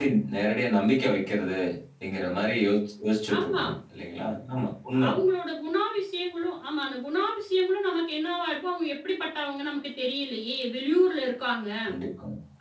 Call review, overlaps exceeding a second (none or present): none